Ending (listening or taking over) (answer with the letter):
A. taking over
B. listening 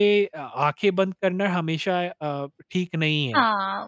A